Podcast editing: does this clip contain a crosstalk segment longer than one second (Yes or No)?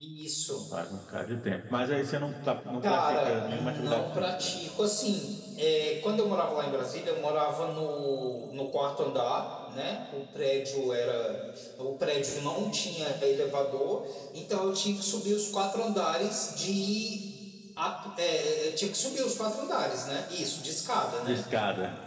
Yes